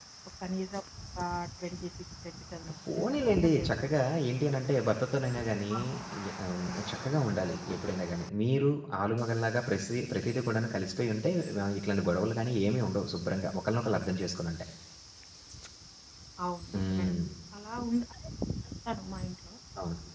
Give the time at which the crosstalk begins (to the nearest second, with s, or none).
3 s